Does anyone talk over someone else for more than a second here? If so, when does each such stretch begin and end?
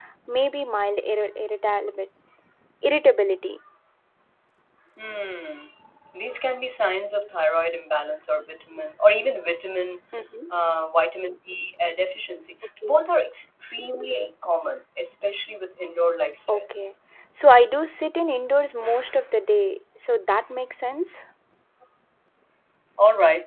none

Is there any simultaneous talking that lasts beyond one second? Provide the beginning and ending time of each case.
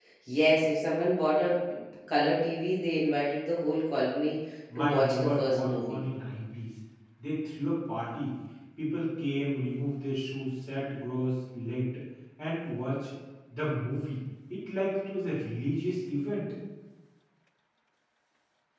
4.8-6.1

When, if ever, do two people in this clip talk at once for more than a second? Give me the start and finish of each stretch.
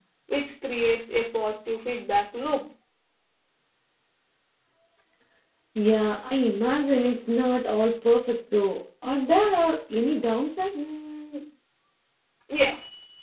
none

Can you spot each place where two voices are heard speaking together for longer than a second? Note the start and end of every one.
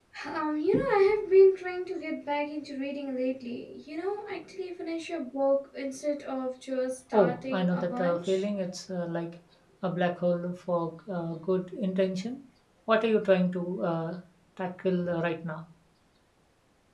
7.1-8.4

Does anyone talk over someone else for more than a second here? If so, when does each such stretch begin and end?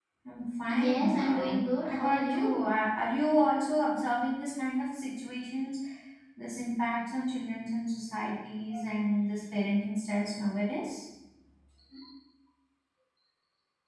0.7-2.6

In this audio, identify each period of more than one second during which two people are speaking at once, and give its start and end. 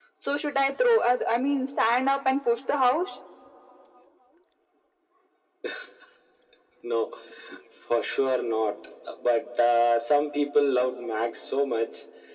none

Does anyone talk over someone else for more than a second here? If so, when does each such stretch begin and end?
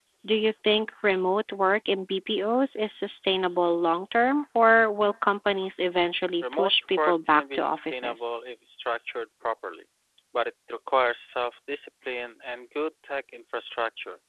6.4-8.3

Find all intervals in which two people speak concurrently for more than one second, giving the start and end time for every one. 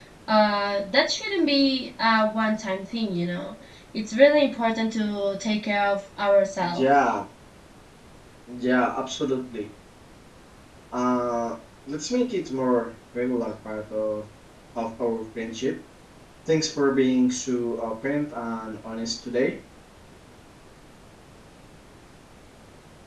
none

